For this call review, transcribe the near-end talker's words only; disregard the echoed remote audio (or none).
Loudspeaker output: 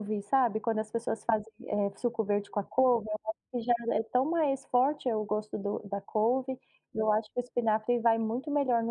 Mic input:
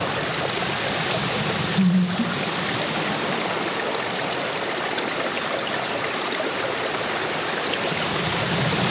Uhum.